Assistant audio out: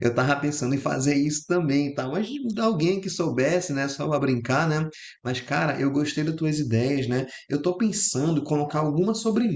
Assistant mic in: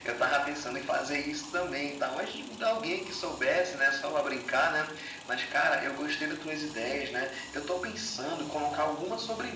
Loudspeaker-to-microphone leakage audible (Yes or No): Yes